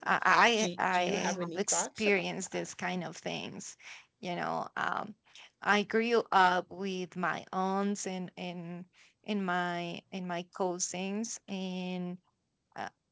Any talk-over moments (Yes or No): Yes